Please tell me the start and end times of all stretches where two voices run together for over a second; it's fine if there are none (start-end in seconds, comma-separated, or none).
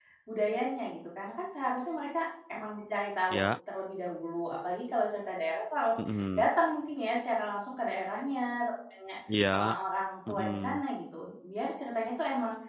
none